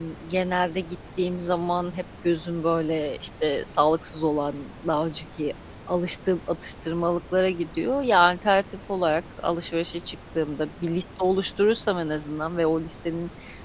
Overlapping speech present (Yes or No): No